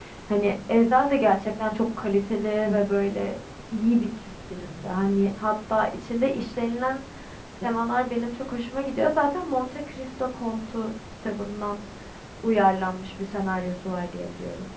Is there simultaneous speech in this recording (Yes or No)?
No